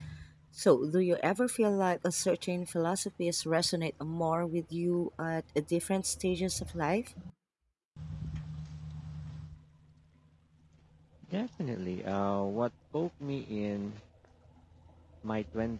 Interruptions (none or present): none